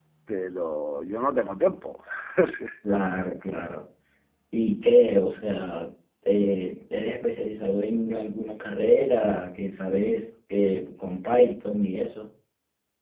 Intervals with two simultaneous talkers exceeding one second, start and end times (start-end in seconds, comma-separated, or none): none